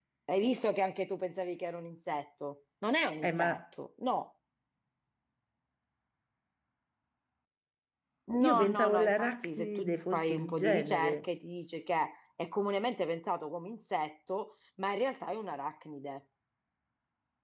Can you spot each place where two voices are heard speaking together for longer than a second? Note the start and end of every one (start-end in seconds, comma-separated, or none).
8.5-11.2